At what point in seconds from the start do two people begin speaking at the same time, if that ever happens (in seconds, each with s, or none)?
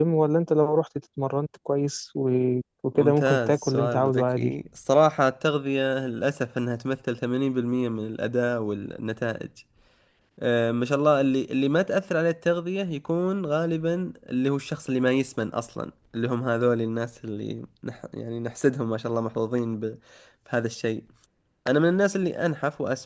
2.9 s